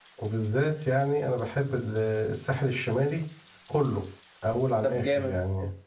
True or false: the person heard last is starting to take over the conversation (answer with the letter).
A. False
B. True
B